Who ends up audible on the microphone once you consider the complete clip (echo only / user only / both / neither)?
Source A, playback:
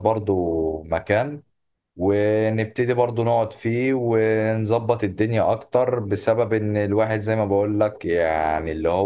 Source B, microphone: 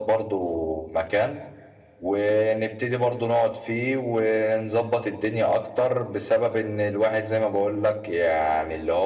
echo only